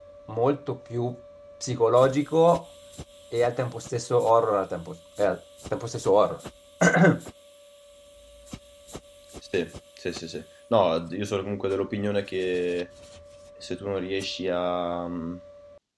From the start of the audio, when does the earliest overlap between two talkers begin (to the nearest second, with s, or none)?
none